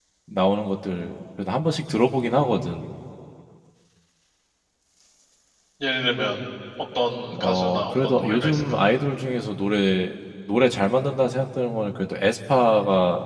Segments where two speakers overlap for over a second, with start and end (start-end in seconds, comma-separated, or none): 7.4-8.6